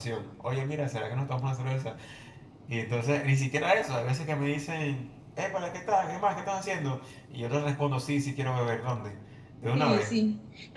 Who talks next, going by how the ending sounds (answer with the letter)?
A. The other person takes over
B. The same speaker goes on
A